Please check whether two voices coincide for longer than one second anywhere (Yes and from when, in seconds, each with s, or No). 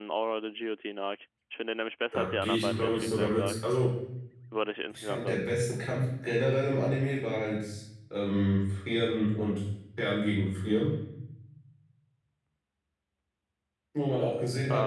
Yes, from 2.1 s